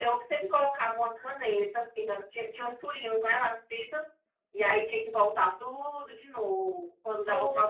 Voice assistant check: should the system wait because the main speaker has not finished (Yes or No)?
No